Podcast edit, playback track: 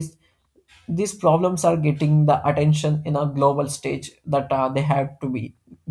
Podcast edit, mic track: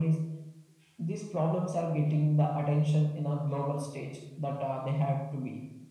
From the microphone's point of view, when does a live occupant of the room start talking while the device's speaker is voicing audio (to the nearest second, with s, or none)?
none